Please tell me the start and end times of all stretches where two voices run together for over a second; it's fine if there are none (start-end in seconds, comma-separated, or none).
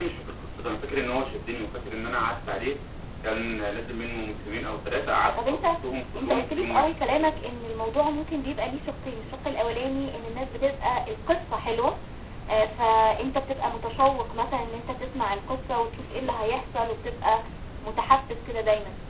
6.2-7.4